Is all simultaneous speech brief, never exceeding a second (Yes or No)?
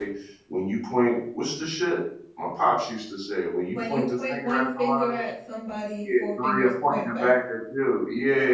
No